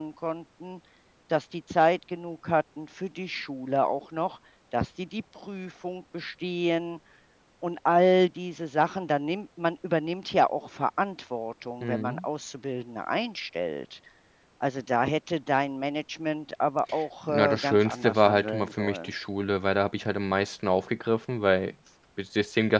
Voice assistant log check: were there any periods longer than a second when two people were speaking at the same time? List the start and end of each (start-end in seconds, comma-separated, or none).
17.2-19.1